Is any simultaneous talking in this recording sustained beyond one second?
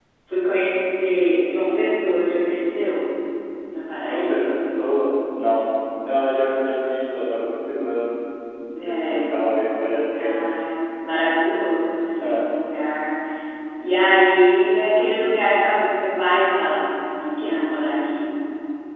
No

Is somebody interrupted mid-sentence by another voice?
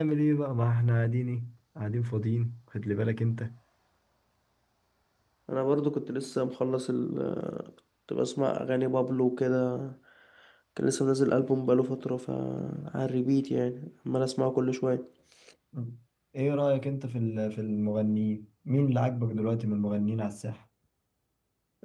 No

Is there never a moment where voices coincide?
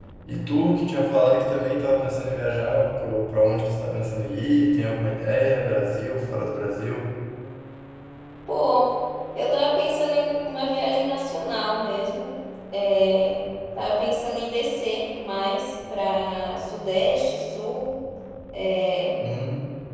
Yes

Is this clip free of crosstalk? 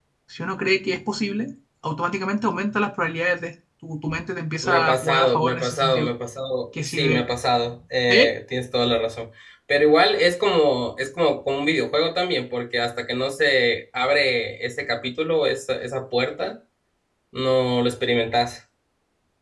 No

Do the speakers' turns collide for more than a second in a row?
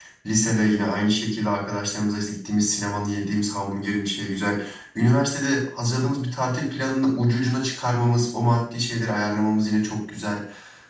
No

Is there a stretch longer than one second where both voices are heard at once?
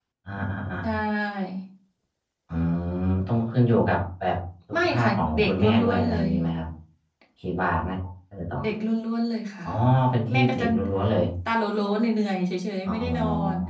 Yes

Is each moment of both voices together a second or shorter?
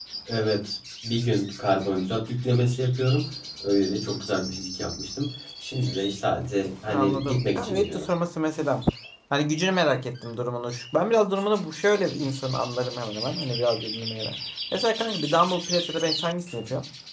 No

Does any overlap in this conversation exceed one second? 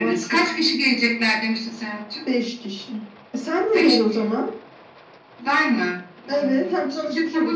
Yes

